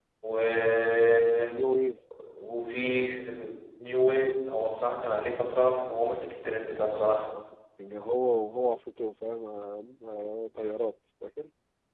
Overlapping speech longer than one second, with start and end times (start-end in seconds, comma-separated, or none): none